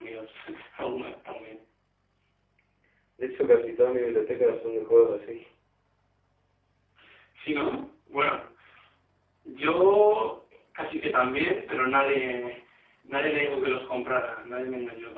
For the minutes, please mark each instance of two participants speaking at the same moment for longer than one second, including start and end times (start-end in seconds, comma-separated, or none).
none